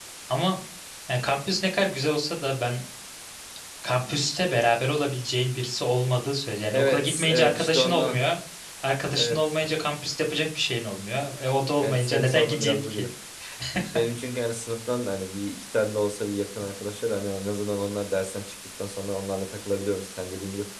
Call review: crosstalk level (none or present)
present